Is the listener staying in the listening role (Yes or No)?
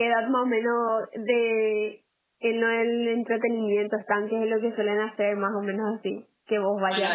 No